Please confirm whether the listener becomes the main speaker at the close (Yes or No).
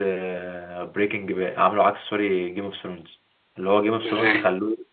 No